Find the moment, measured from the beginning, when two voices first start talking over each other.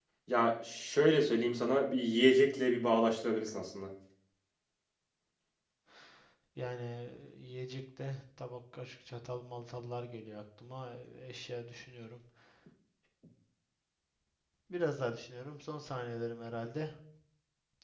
none

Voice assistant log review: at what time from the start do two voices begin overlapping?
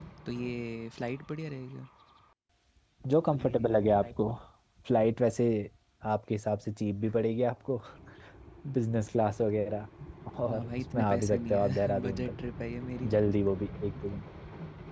10.5 s

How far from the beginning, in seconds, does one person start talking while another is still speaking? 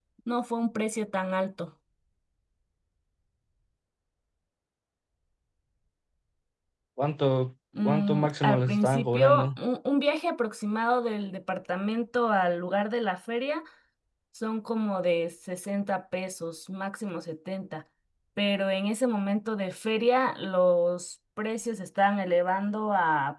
7.8 s

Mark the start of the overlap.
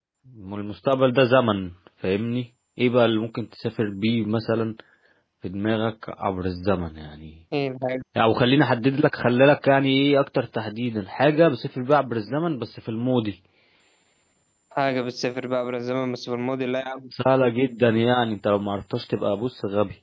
none

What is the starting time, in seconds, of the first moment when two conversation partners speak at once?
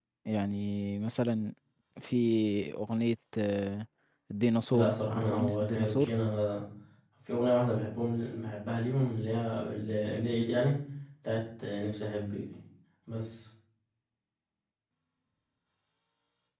4.7 s

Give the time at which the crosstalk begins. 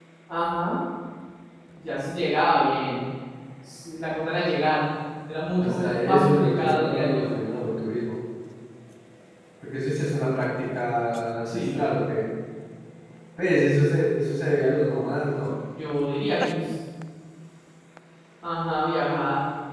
5.6 s

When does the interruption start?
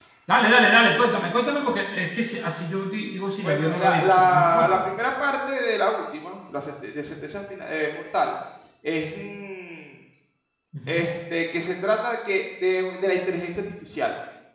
3.4 s

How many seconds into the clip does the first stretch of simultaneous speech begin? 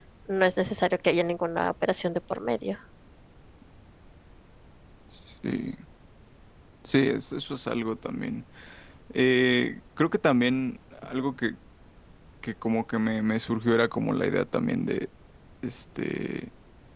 none

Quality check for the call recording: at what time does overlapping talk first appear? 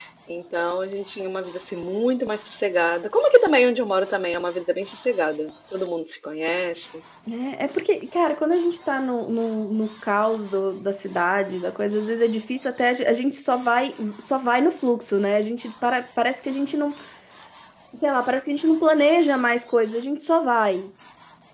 none

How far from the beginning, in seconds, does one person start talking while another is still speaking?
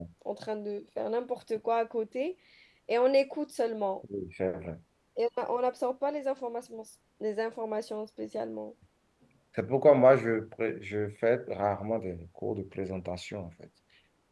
none

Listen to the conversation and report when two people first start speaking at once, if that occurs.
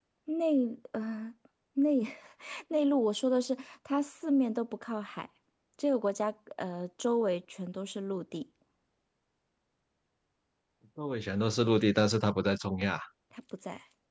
none

